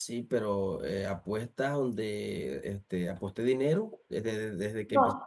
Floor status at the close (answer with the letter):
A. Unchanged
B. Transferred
B